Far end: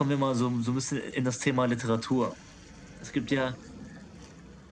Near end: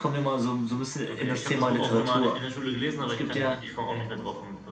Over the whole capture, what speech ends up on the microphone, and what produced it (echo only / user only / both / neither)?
both